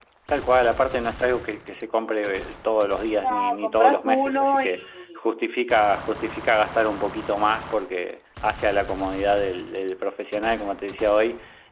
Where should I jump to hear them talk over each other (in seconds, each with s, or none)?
3.2 s